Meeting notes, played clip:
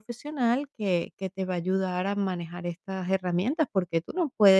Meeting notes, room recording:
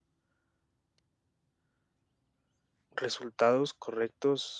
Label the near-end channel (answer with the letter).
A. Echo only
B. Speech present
B